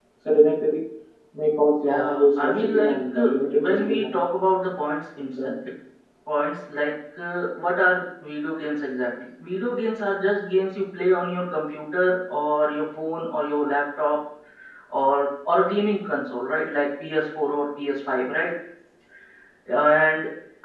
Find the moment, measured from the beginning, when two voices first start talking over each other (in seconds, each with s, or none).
1.8 s